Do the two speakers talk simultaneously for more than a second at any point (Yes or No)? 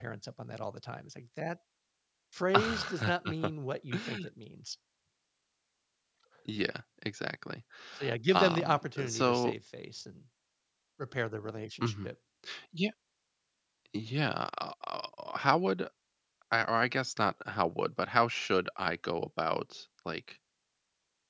Yes